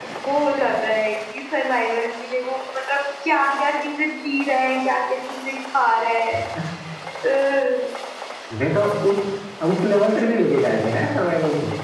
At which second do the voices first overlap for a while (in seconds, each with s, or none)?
none